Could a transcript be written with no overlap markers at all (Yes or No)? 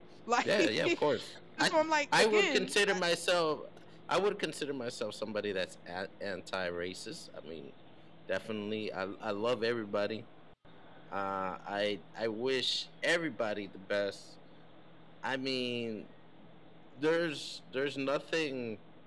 No